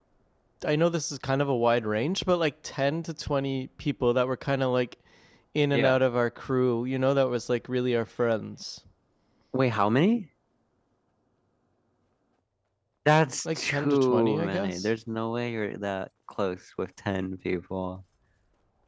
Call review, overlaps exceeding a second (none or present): present